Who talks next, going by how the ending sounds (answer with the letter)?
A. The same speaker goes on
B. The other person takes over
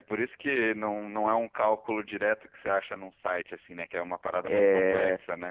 B